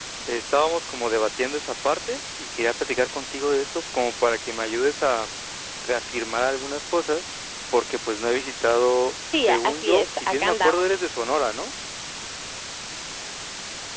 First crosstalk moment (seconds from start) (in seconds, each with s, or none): 9.3 s